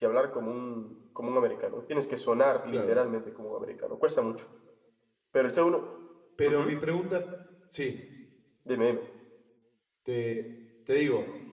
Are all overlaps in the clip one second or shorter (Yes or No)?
Yes